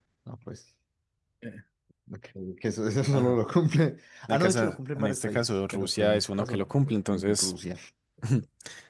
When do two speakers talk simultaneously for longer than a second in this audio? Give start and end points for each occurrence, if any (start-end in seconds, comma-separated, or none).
4.3-6.7